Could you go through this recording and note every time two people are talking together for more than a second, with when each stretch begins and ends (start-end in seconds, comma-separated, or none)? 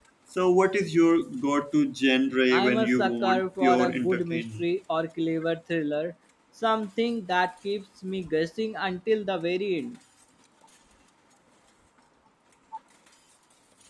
2.5-4.6